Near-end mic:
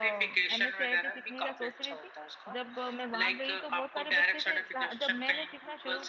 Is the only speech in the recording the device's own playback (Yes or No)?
No